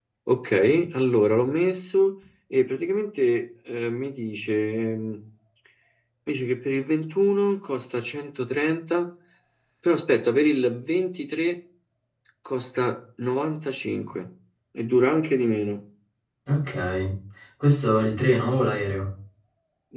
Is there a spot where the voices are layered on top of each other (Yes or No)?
No